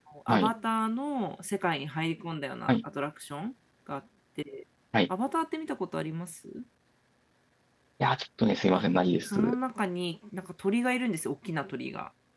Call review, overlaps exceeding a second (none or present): none